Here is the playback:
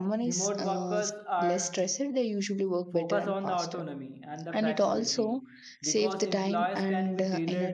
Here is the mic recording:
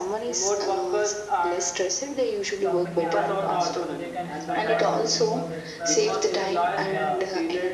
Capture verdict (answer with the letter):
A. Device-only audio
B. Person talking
B